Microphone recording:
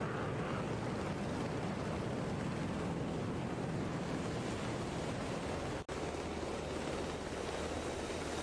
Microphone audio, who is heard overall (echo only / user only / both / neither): neither